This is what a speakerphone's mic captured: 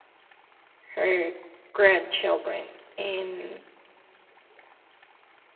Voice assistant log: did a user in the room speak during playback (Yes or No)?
Yes